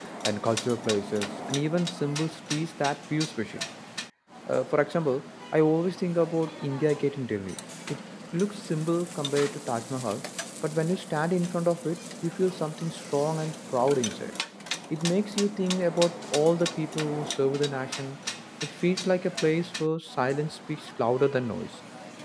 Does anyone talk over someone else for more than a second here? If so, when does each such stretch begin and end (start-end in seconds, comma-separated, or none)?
none